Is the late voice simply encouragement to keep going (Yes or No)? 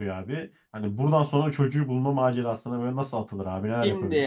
No